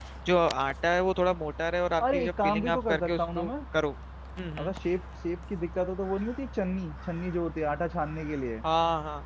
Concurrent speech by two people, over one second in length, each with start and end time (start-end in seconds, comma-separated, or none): 2.0-3.5